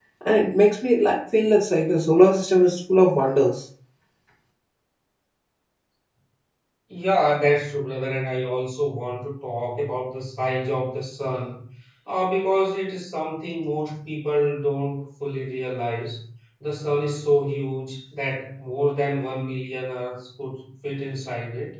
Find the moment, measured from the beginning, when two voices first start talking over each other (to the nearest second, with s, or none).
none